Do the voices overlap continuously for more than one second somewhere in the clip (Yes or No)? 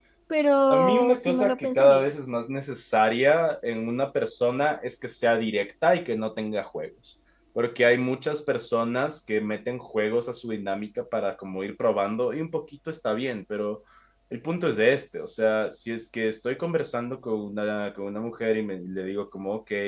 Yes